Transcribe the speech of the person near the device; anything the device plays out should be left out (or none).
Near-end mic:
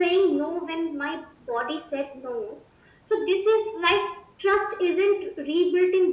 none